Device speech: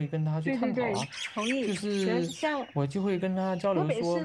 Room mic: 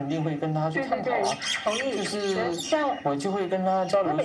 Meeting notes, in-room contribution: none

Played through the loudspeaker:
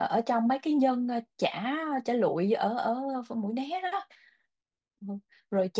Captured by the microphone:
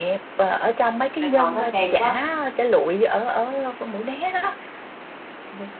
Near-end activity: present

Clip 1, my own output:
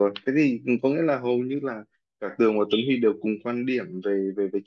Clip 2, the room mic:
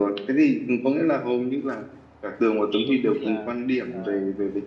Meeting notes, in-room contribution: present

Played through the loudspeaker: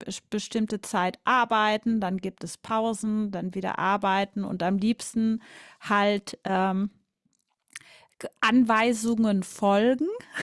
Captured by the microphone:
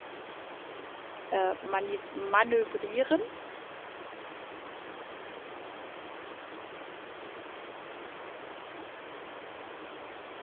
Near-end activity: present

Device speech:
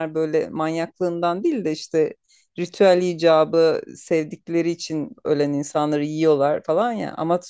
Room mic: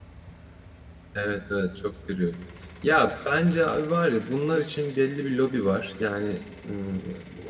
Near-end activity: present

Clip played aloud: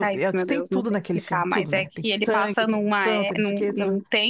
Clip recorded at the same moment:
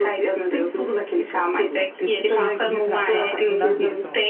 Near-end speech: present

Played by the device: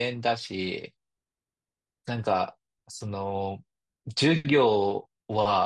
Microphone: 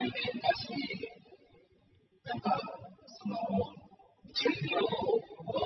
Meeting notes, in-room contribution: none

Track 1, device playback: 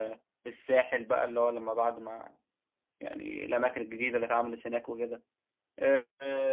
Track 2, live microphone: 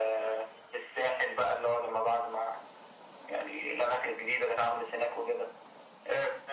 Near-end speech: none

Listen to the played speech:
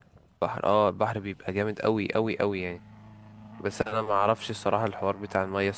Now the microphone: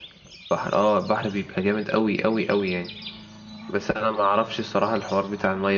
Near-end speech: none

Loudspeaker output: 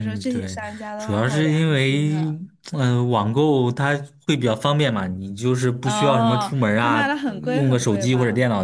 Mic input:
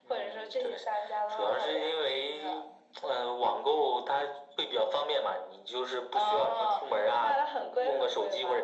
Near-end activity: none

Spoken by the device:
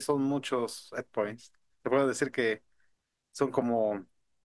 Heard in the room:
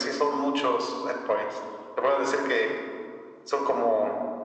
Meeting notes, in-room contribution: none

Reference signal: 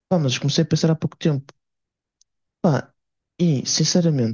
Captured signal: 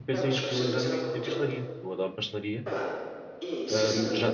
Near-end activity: present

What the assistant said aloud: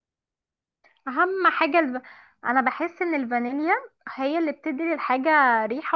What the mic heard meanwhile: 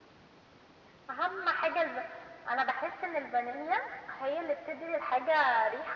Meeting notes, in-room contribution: none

